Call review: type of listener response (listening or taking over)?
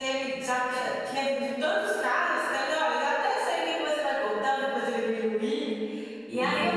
listening